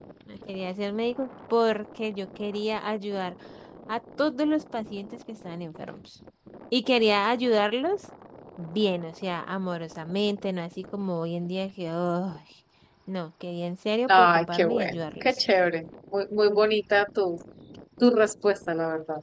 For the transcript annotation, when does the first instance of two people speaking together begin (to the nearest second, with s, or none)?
14 s